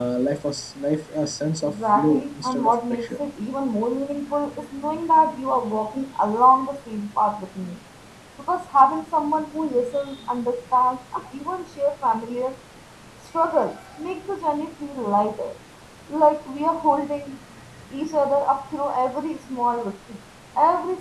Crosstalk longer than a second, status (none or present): present